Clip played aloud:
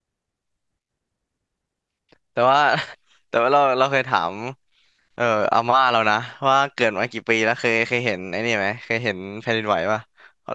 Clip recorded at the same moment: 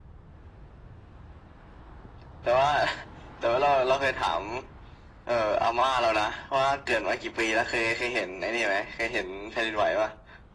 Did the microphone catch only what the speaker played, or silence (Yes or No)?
Yes